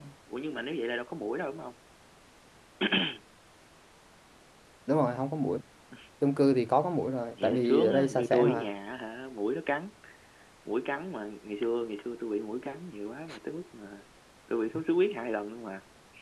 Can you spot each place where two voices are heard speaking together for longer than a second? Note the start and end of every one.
7.4-8.7

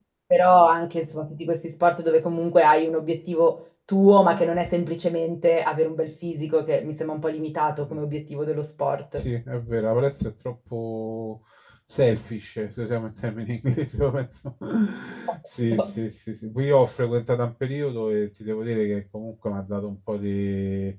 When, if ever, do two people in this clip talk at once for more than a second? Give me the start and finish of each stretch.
none

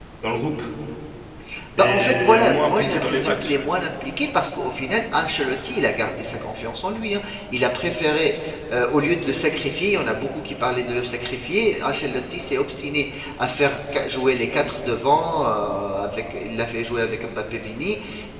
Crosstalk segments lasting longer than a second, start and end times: 1.8-3.5

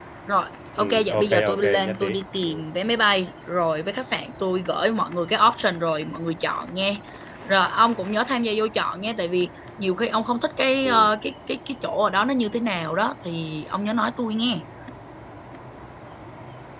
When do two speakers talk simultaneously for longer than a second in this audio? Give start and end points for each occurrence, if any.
0.8-2.0

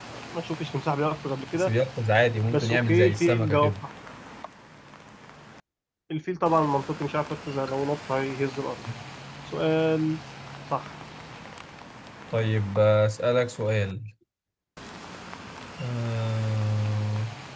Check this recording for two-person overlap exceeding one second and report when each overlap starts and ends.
2.5-3.7

